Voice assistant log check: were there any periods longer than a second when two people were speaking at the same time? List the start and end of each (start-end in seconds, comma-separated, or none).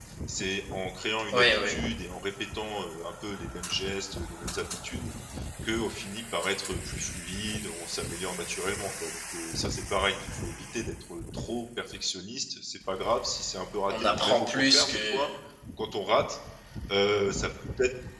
13.9-15.3